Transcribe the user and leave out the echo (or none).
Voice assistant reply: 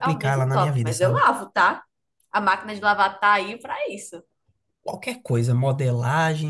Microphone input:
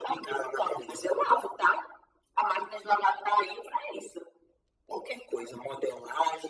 none